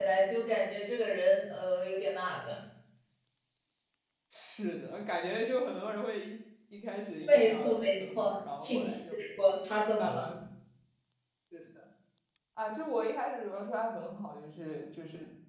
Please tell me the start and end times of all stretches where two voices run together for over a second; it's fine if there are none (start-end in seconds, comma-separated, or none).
7.3-9.2